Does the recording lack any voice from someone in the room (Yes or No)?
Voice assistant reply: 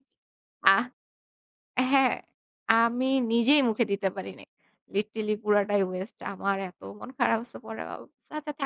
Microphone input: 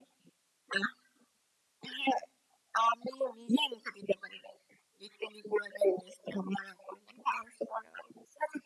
Yes